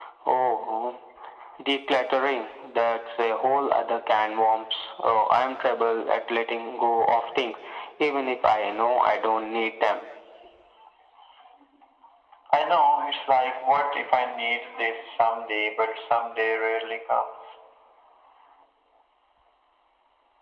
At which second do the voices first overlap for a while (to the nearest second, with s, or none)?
none